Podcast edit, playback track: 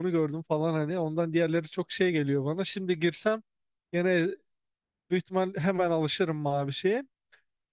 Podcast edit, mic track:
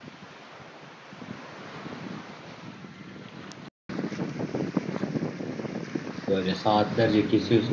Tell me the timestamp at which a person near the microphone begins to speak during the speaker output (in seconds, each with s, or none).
6.3 s